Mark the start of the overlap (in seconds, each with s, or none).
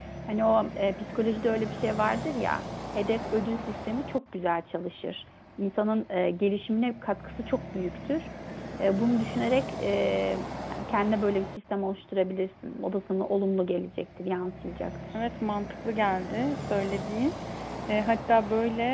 none